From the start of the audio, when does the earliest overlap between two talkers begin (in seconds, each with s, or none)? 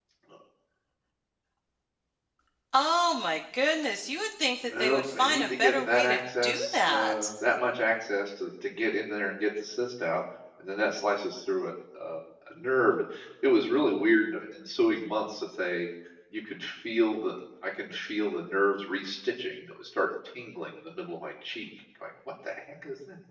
4.7 s